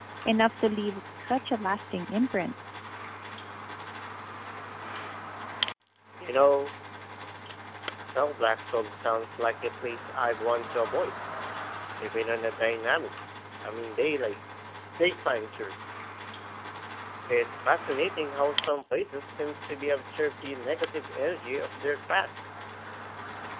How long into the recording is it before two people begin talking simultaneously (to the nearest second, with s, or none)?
none